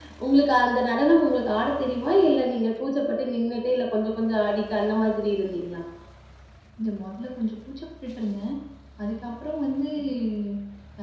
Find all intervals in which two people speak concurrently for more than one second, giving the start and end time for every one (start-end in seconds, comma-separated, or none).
none